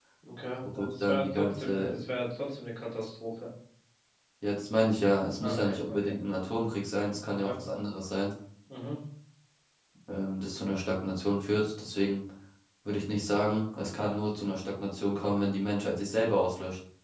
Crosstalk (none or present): present